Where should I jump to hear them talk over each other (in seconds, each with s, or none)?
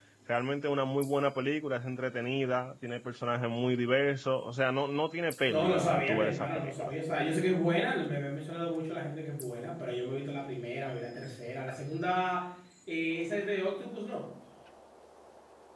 5.5 s